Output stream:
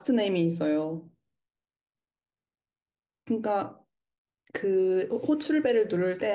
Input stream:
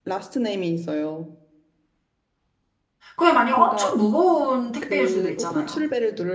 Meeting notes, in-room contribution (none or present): present